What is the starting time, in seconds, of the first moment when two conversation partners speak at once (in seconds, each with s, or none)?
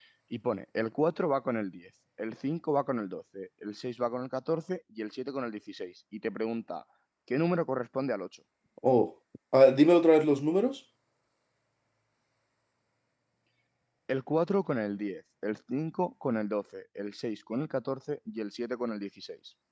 none